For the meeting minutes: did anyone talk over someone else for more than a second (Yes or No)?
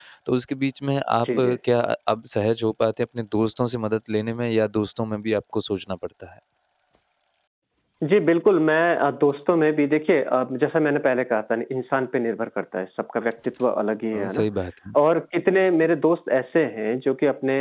No